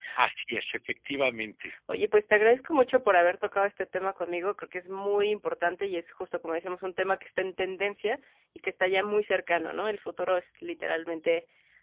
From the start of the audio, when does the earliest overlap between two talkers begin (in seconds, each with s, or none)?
none